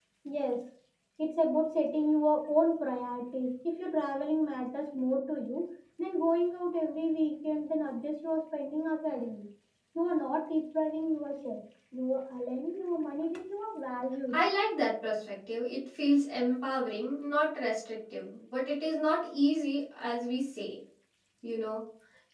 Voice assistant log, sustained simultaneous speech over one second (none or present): none